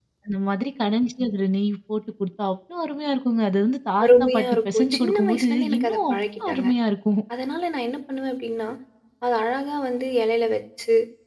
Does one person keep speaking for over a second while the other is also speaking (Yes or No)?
Yes